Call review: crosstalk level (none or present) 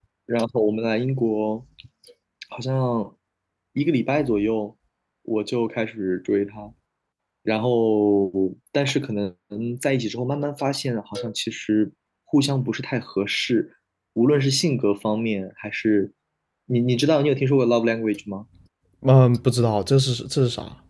none